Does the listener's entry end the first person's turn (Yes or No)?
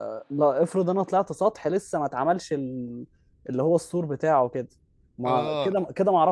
No